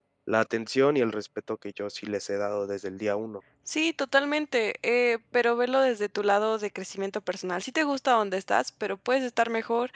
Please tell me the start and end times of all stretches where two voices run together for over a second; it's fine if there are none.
none

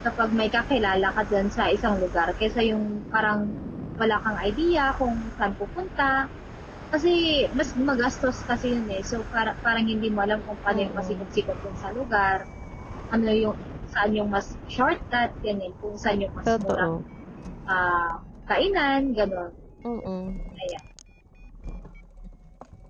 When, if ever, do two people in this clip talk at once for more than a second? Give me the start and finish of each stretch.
none

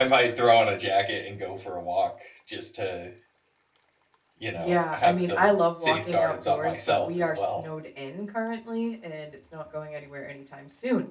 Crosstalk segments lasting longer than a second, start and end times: 4.6-7.6

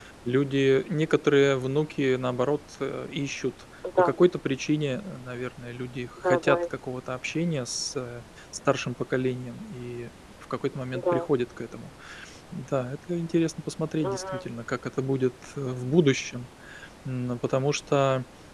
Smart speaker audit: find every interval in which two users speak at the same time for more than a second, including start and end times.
none

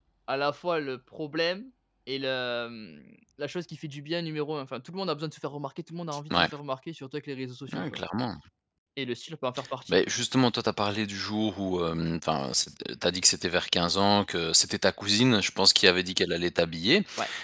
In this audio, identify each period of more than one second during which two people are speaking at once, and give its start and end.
none

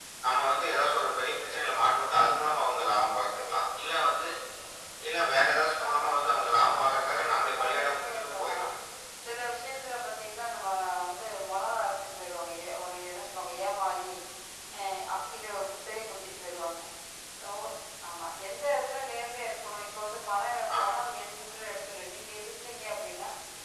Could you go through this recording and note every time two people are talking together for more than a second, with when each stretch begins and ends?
6.8-8.6

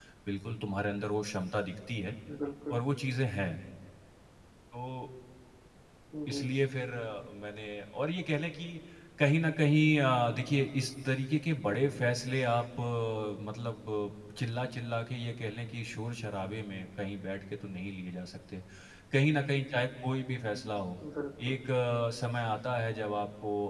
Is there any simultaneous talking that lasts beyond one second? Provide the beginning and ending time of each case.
none

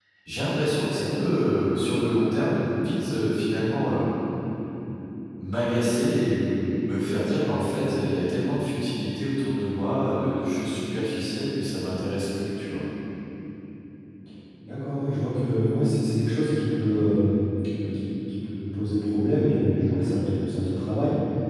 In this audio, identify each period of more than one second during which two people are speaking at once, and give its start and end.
none

